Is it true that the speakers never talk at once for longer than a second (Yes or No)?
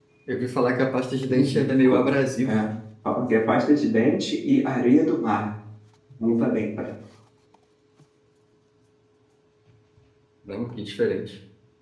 No